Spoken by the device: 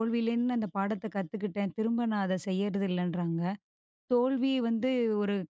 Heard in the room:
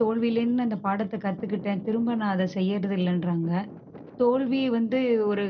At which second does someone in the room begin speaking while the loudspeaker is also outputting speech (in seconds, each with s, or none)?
none